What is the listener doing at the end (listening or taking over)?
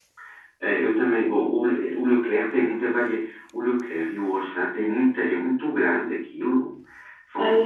listening